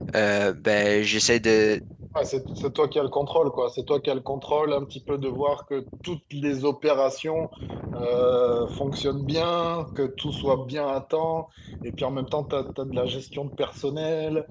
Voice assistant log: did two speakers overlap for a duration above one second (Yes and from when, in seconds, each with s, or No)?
No